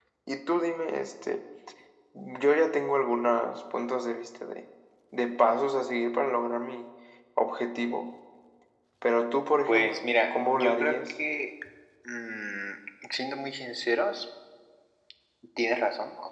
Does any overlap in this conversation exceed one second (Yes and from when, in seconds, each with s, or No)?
Yes, from 9.7 s